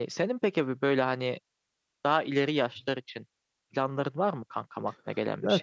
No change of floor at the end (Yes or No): No